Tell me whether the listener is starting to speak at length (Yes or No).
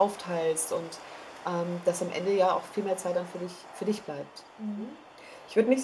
Yes